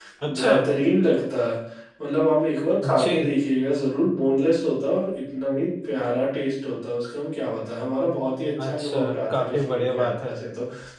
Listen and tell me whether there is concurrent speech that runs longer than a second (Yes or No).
Yes